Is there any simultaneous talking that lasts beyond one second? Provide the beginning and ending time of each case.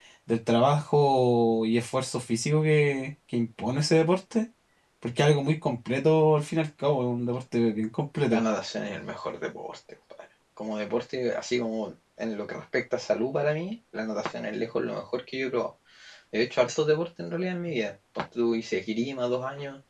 none

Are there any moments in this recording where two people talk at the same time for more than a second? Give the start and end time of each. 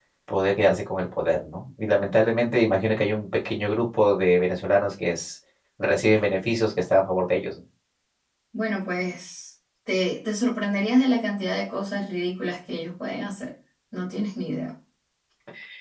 none

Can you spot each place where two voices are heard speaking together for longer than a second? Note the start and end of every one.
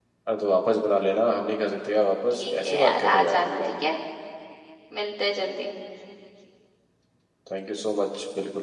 2.4-3.6

